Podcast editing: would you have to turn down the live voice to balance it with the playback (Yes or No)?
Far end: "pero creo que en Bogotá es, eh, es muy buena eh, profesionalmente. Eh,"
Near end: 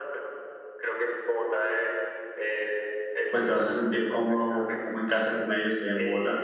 Yes